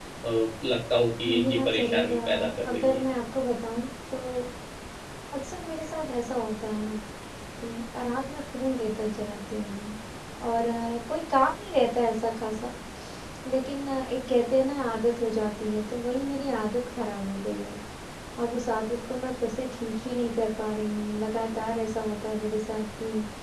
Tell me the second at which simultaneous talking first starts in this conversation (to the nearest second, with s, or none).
1 s